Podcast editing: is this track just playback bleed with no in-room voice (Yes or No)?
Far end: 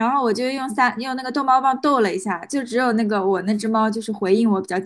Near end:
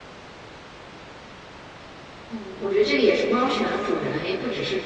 No